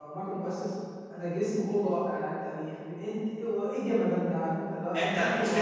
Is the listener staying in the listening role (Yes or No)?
No